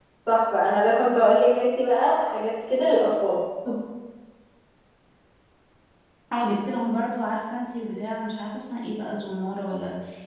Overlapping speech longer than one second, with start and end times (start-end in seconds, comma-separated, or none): none